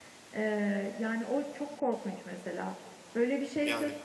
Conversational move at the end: listening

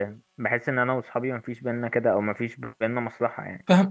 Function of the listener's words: taking over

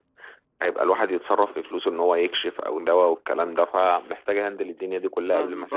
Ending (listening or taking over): taking over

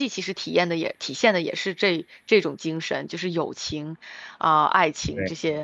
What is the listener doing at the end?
taking over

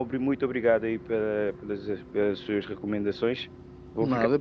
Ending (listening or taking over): listening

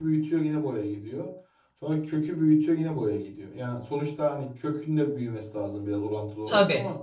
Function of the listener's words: listening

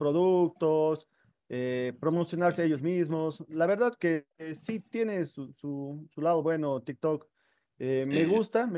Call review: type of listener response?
listening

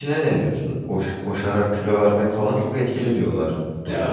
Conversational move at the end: taking over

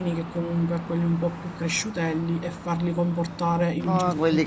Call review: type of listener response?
taking over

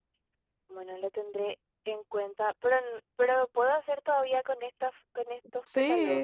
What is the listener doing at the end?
taking over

